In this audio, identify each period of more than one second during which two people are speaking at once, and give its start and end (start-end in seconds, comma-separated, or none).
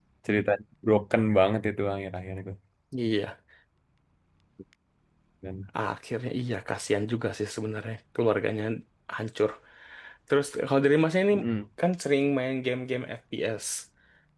none